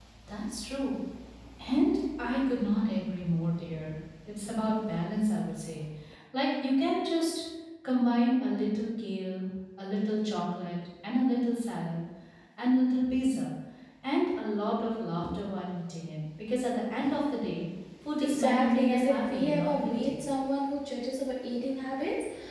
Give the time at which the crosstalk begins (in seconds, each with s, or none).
18.2 s